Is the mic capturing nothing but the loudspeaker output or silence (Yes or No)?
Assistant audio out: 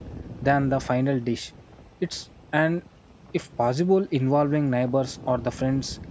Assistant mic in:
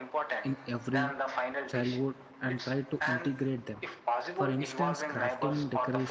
No